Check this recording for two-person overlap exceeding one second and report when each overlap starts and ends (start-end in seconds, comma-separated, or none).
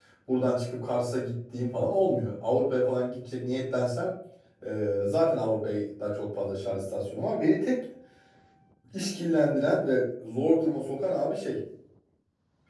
none